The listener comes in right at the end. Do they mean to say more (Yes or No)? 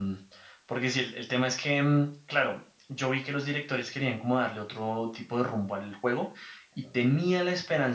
No